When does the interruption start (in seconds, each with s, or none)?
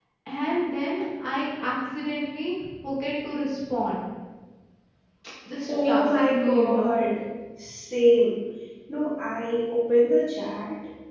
5.7 s